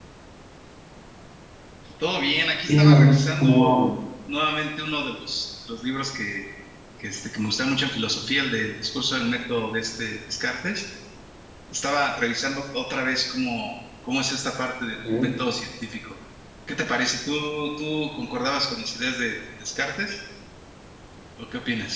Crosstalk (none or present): present